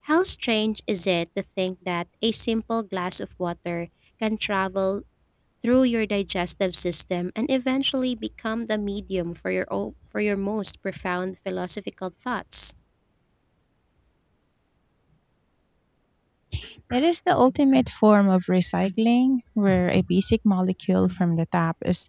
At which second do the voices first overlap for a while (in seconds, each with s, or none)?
none